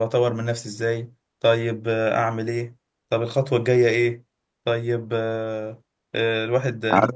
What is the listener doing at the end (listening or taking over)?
listening